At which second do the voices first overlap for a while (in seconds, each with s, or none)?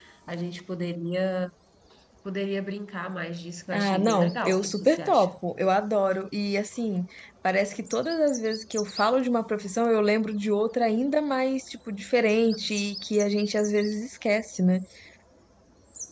3.7 s